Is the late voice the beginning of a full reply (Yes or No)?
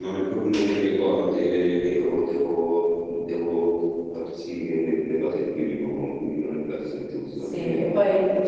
Yes